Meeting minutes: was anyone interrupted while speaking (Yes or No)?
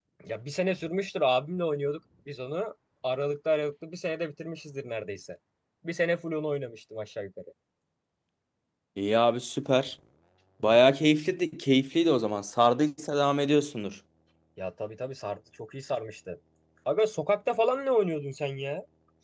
No